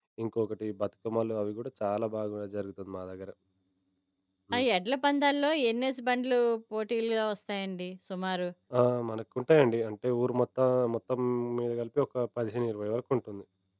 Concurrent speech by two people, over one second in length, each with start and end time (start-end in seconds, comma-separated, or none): none